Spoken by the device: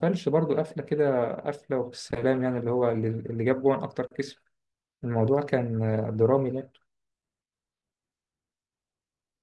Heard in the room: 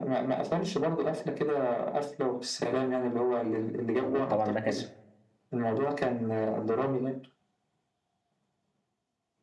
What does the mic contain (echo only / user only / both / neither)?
both